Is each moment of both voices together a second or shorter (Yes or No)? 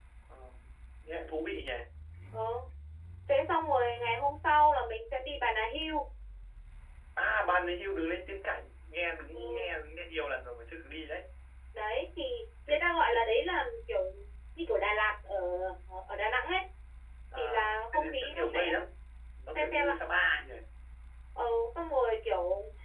No